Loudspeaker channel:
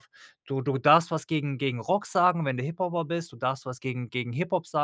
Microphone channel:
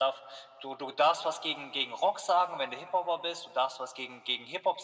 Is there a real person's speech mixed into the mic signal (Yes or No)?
No